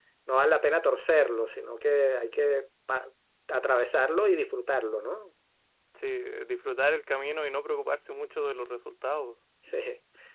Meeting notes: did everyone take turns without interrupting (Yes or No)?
Yes